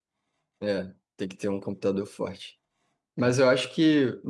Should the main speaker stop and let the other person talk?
No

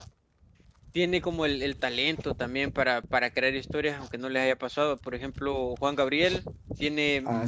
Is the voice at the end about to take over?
No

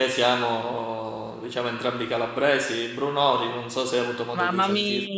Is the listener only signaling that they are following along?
No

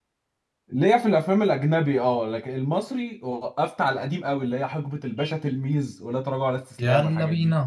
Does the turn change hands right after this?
Yes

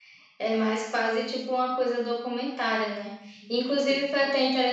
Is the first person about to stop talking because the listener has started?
No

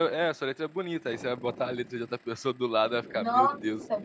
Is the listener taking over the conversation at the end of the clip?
Yes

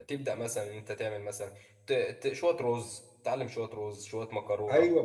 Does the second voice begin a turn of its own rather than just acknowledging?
Yes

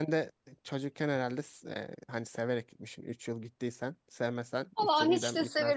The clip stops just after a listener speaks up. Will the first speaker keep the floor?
No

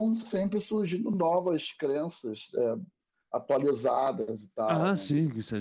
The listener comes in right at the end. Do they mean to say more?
Yes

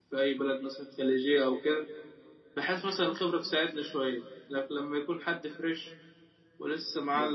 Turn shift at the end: Yes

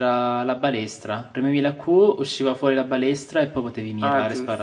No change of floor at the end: No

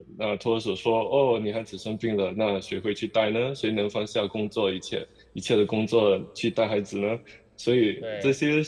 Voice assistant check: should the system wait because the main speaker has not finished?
Yes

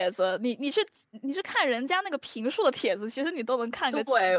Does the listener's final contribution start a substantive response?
Yes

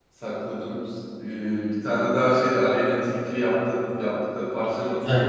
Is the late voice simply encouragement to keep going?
No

